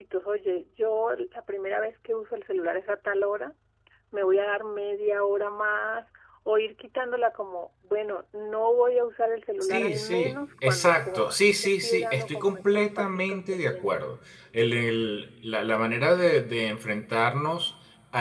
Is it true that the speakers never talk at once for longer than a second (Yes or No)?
No